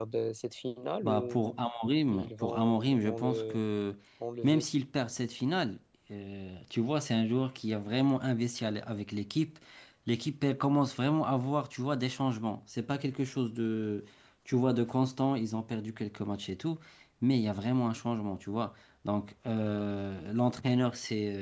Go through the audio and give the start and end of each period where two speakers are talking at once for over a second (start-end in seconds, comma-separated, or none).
2.1-3.6